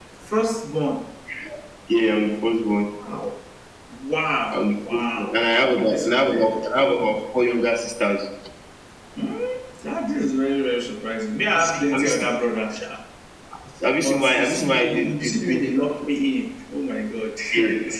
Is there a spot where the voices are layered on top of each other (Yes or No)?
Yes